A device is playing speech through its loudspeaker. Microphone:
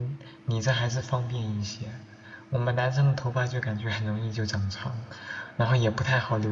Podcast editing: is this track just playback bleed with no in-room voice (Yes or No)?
No